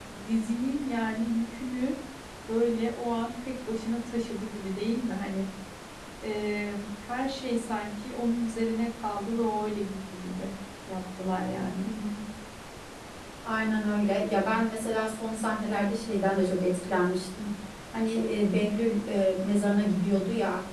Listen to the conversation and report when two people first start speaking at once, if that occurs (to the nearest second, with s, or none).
none